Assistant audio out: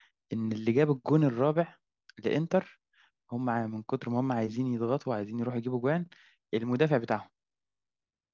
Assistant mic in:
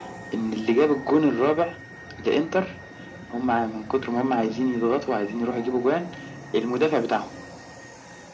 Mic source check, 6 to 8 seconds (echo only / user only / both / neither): echo only